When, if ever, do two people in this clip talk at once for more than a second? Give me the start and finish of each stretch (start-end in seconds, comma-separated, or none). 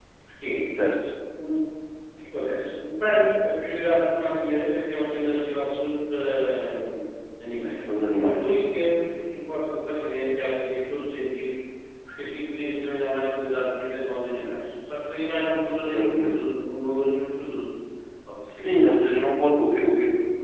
none